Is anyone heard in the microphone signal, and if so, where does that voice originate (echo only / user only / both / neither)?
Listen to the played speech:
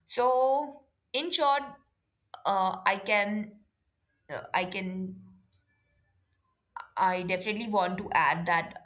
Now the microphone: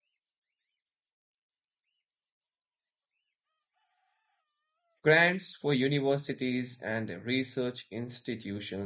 user only